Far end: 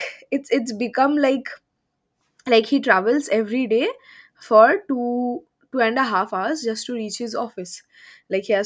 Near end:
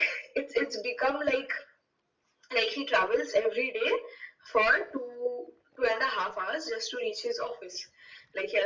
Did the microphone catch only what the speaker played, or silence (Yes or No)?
Yes